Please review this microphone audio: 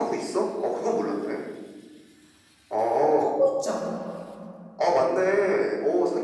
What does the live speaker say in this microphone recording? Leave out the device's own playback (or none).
어, 하고 있지 않아?